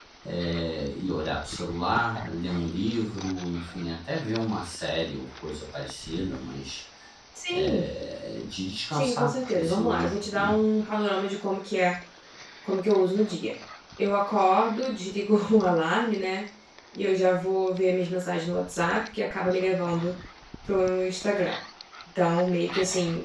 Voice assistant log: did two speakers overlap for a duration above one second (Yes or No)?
Yes